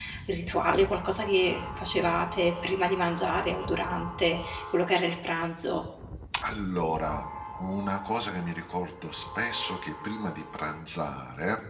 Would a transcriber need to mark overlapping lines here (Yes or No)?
No